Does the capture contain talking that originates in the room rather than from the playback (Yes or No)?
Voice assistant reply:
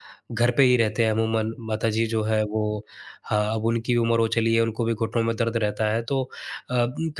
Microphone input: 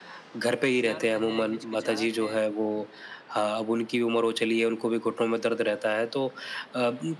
Yes